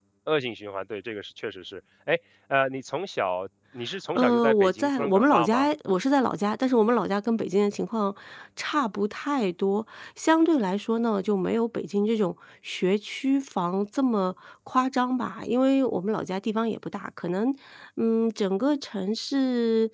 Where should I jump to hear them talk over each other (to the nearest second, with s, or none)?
4 s